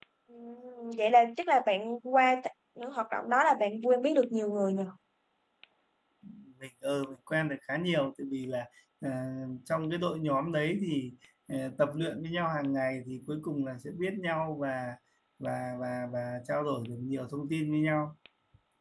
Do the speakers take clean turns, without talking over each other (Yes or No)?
Yes